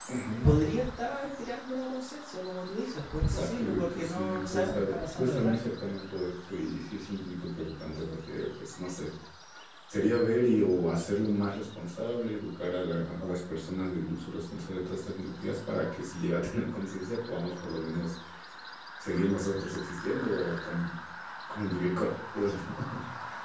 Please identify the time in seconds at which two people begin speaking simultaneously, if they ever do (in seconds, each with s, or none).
3.2 s